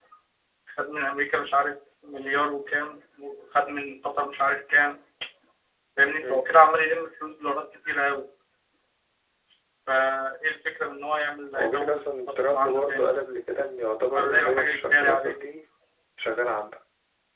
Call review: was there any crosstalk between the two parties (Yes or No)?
Yes